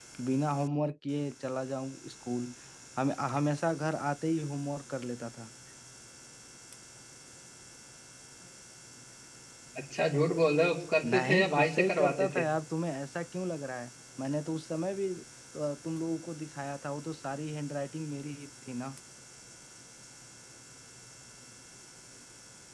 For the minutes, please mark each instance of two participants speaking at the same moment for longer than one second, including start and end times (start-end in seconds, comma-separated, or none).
11.1-12.4